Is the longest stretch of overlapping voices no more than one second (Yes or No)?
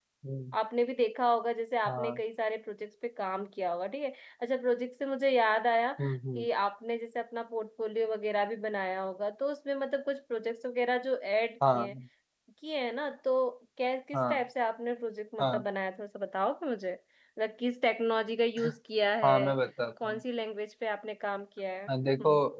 Yes